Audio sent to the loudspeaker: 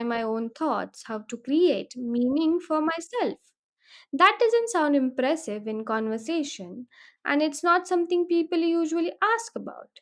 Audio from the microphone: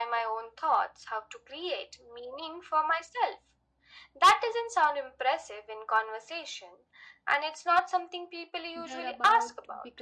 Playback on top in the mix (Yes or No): Yes